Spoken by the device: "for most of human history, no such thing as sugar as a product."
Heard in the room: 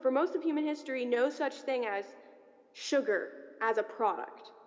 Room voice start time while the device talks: none

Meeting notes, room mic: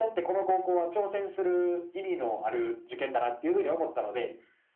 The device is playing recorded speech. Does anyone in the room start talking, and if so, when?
none

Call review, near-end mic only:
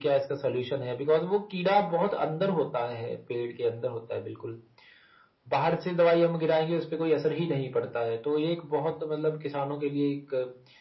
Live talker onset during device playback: none

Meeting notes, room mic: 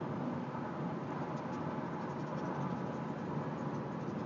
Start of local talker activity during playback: none

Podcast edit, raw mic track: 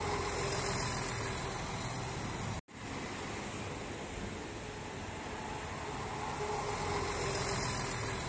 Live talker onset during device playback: none

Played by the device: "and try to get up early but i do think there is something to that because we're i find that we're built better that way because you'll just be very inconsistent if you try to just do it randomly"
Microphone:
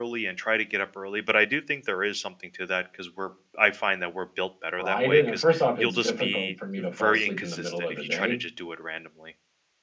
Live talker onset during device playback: 4.8 s

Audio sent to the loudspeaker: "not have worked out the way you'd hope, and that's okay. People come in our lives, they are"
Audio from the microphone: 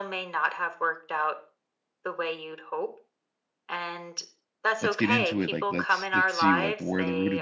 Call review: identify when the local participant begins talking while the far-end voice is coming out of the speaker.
4.8 s

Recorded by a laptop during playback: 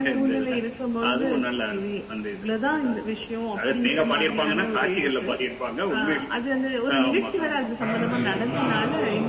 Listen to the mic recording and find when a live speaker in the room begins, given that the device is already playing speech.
7.8 s

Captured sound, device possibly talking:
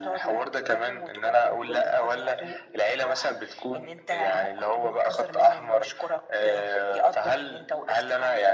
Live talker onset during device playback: none

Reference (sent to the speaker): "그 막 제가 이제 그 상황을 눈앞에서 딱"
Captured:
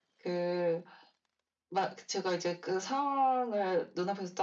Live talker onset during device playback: none

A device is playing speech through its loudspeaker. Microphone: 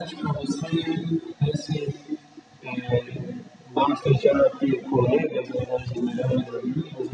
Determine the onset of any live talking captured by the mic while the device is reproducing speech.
none

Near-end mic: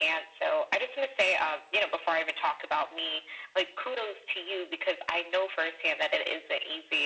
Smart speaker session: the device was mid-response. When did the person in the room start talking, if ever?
none

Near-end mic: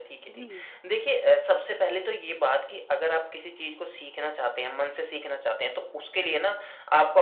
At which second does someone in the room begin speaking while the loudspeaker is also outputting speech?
0.3 s

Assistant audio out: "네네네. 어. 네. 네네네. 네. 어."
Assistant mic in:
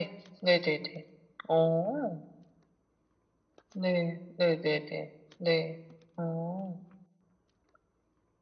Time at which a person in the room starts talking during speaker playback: none

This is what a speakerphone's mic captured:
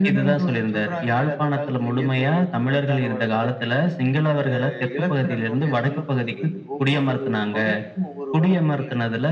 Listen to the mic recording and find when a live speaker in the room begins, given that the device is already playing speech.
none

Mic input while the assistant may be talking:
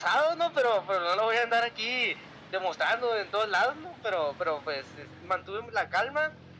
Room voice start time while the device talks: none

